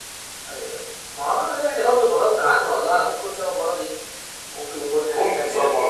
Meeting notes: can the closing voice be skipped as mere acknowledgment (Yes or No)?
No